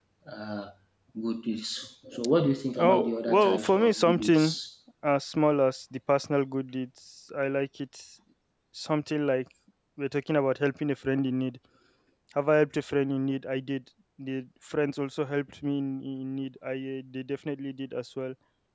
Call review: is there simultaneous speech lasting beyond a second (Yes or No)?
Yes